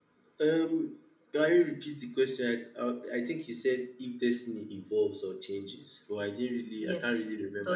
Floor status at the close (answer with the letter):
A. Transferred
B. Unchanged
A